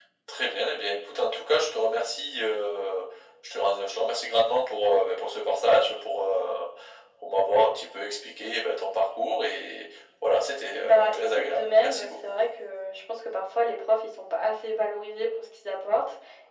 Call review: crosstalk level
present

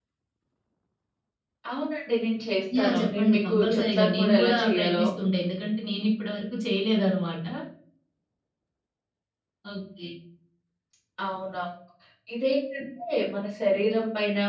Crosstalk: present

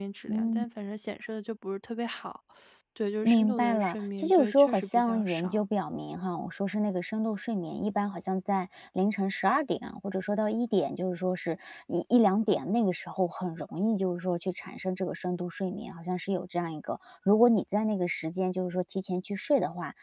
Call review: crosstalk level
present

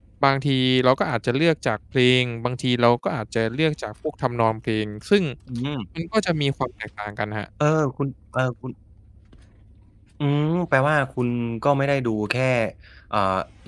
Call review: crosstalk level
none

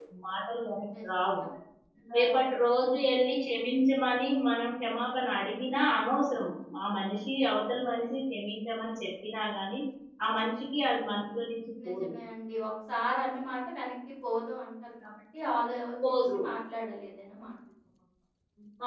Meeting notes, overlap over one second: none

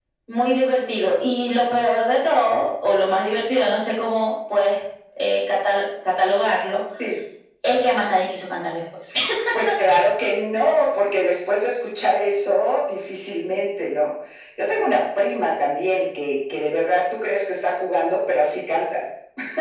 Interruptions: none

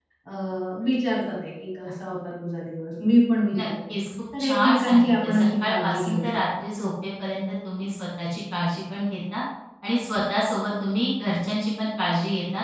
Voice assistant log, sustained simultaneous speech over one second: present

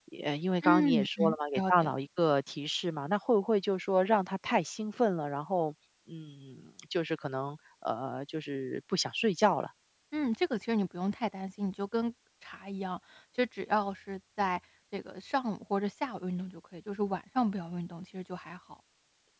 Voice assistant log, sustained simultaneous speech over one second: present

